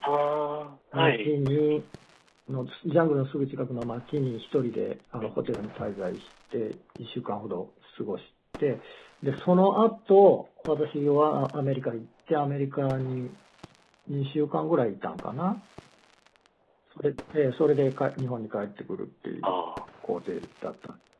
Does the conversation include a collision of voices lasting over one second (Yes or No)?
No